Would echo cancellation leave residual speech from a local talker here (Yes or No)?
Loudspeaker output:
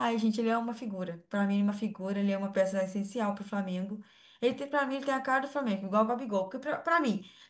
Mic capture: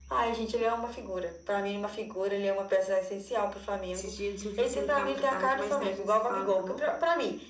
Yes